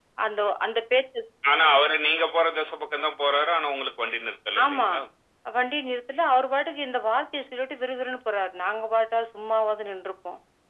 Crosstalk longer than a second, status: none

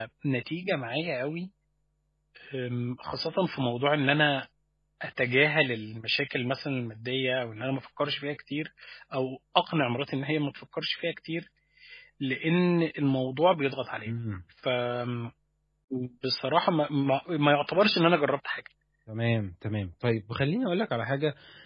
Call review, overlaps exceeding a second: none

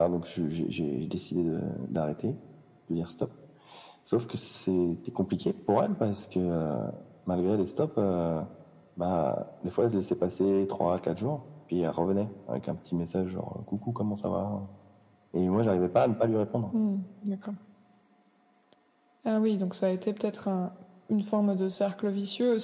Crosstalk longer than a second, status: none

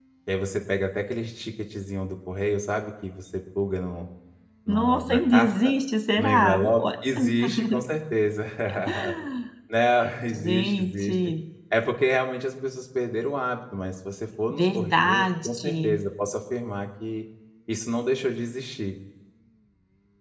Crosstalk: present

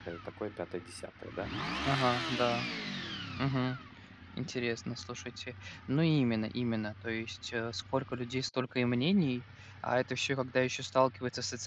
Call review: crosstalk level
none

